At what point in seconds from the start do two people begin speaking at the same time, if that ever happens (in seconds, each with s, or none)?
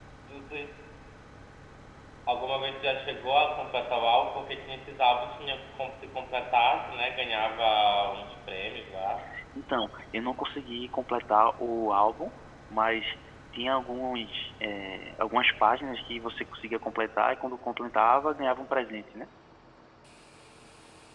none